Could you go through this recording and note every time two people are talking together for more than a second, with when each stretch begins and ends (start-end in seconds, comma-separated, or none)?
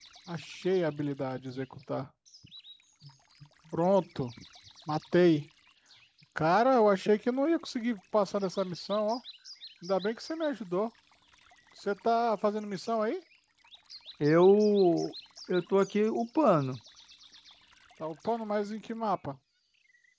none